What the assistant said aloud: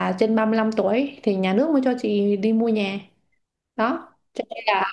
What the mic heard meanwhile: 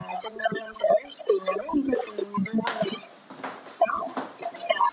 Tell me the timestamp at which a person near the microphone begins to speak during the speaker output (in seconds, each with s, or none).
none